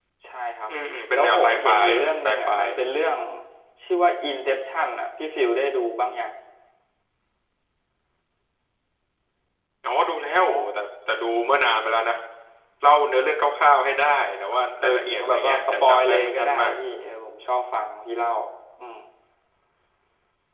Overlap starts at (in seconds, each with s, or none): 1.1 s